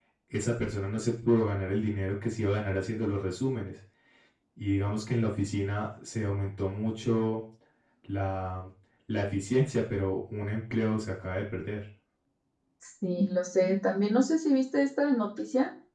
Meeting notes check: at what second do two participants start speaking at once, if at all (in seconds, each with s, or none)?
none